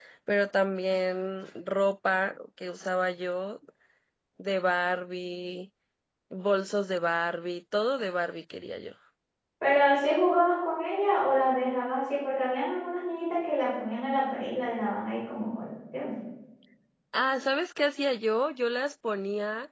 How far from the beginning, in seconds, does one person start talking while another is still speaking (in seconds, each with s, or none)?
none